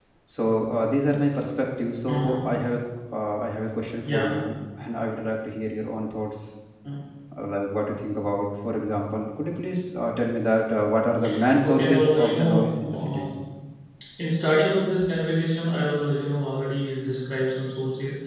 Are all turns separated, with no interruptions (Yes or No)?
No